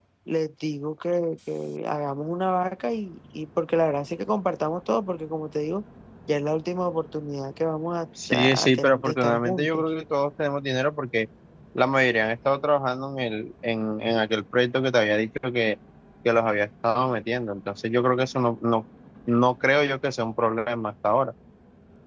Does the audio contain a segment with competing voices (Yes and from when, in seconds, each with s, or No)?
Yes, from 8.2 s